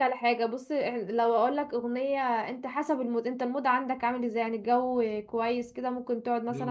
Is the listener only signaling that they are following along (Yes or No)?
Yes